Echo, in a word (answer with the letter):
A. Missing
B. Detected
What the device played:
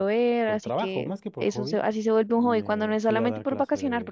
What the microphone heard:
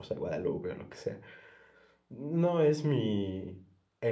A